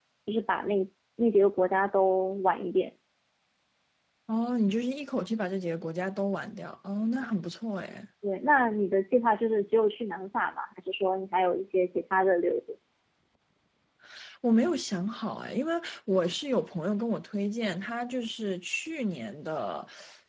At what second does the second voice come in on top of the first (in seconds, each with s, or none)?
none